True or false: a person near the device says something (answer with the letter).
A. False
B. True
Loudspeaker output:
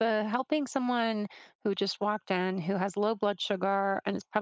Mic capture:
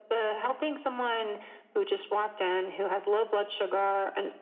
A